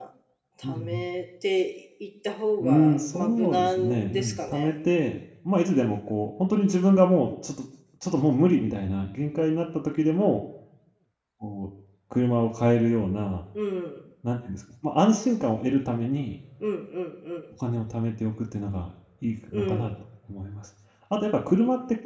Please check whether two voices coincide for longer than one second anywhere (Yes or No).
Yes